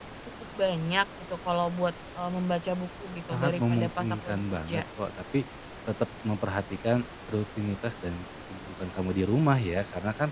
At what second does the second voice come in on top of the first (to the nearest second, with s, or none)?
3 s